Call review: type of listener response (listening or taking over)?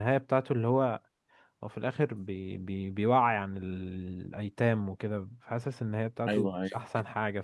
listening